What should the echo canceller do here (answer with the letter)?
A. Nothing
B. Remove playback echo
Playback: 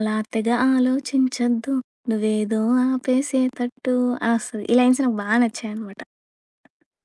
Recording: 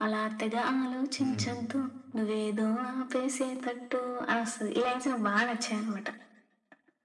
B